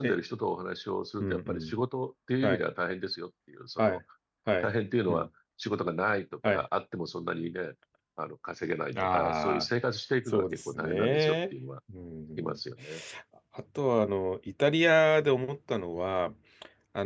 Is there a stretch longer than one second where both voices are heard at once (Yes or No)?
Yes